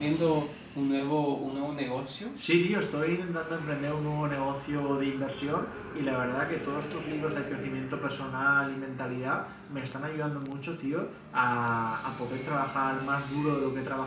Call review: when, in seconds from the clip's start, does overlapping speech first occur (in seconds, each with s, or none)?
none